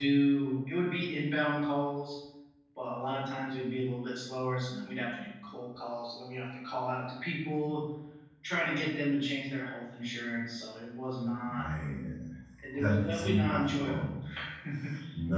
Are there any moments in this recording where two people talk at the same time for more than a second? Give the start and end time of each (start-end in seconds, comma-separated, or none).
12.8-14.0